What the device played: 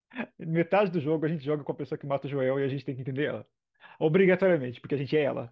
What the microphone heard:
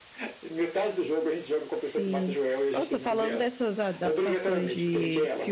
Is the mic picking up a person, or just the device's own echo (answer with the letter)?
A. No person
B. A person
B